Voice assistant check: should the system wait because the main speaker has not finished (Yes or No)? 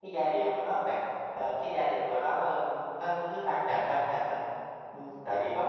No